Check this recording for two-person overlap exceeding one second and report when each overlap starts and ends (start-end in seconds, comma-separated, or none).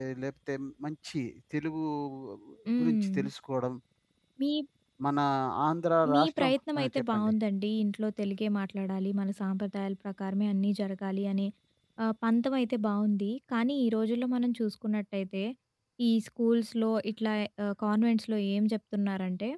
6.1-7.3